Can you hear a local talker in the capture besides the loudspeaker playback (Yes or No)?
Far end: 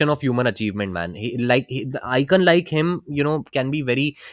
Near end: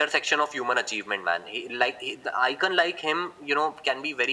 No